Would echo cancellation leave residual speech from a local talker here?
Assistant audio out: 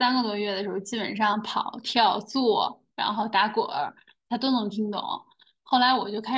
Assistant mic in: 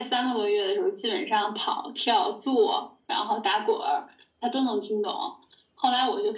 No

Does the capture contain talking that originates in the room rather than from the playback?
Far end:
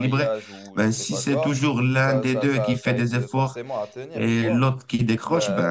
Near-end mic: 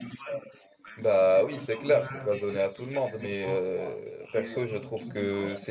Yes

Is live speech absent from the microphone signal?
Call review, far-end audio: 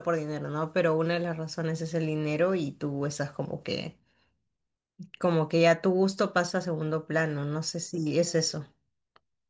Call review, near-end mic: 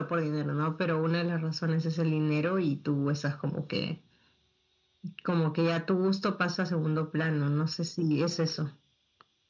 Yes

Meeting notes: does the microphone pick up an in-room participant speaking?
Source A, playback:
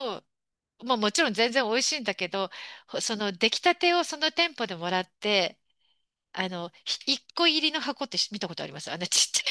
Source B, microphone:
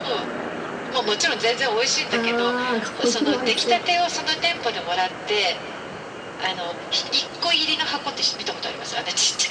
Yes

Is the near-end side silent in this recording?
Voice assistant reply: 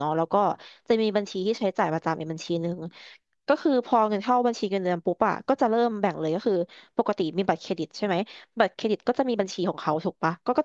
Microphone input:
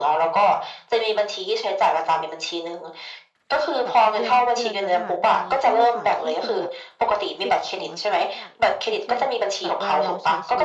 No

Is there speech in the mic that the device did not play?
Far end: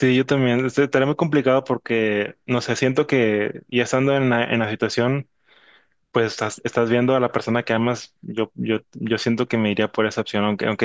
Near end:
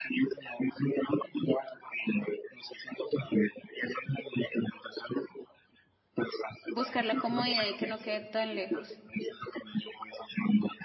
Yes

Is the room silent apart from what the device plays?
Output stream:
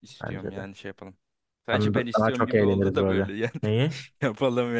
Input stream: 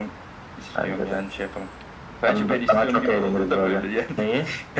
Yes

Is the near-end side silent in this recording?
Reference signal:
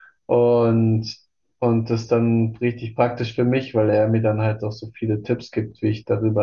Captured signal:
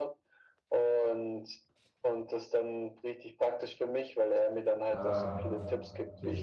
No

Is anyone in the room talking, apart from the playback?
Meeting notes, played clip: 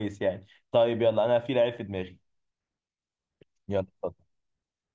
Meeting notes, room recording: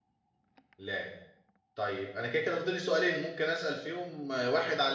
Yes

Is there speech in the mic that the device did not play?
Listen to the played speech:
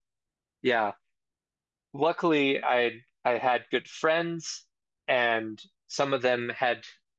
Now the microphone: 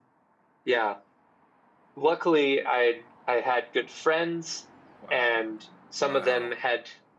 Yes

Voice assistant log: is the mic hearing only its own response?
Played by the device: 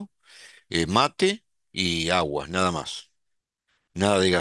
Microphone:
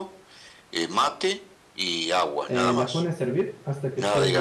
No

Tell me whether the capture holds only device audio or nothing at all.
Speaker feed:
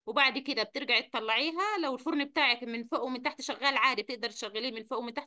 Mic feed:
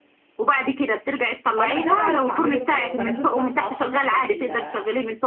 No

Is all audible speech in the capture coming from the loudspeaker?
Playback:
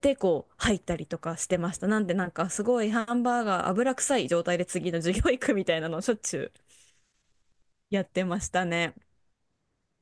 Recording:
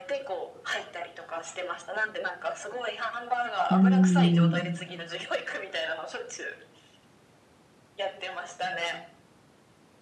No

